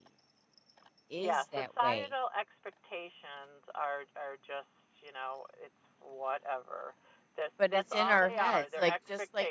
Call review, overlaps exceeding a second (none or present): present